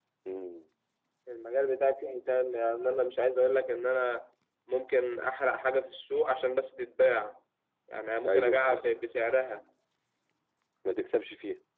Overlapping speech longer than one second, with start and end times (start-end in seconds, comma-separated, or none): none